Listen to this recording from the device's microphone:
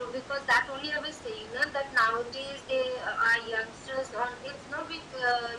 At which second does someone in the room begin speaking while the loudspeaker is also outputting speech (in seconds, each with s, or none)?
none